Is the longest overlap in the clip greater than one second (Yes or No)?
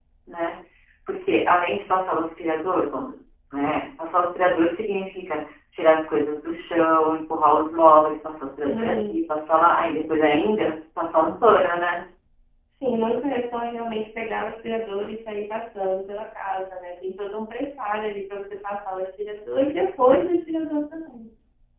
No